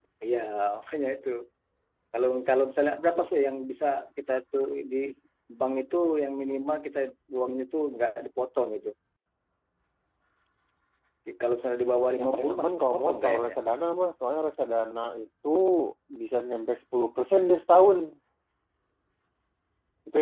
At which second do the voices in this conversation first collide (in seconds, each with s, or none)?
12.2 s